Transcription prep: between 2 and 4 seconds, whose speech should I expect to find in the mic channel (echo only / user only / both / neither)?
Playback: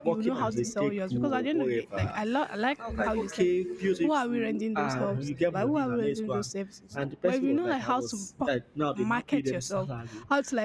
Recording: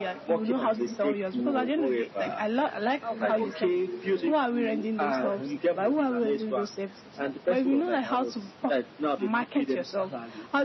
echo only